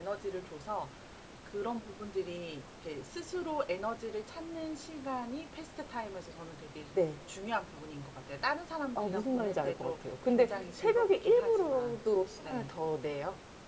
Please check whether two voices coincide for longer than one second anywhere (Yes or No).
Yes